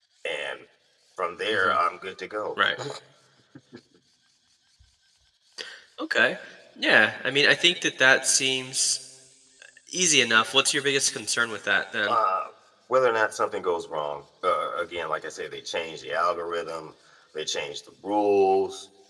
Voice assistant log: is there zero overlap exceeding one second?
Yes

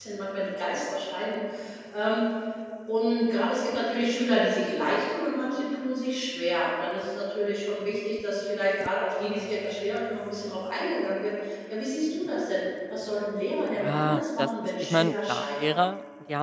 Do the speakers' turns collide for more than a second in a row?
Yes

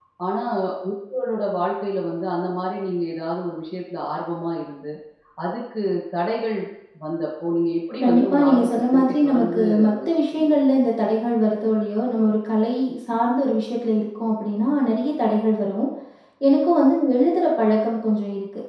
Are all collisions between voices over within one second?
No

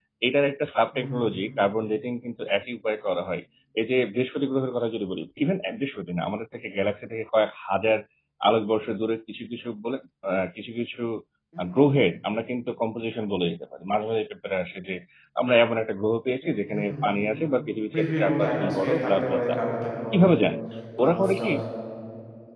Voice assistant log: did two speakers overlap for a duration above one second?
Yes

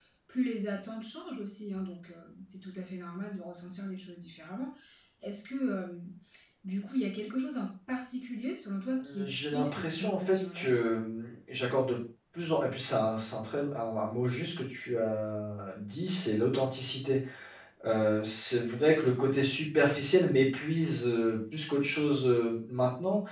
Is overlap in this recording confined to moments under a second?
No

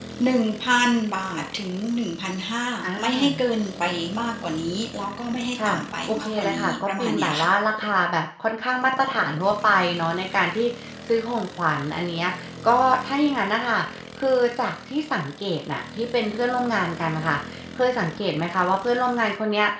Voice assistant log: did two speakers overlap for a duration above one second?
Yes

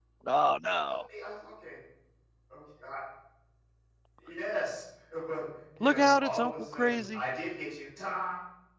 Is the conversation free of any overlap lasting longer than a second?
No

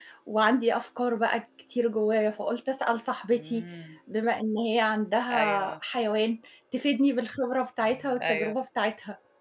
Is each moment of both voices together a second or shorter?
Yes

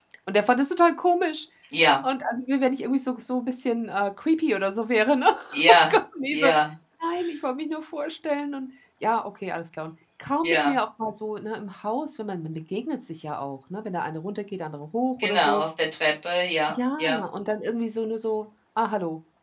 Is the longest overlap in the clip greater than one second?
No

